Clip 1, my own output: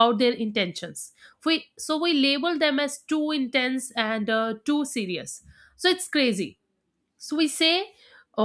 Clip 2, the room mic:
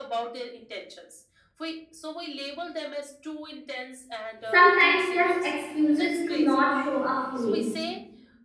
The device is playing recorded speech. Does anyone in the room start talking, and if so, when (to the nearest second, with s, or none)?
5 s